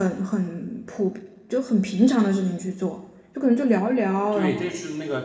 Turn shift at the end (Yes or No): Yes